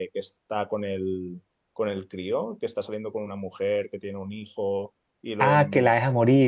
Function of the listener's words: taking over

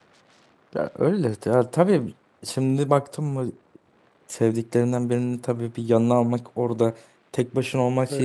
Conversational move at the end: listening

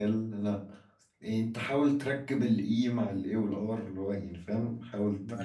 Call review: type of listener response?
taking over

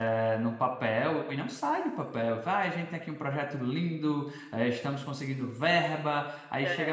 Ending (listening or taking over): listening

